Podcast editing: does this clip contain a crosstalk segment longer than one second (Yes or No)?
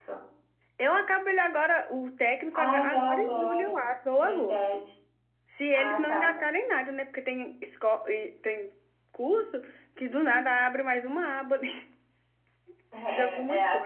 Yes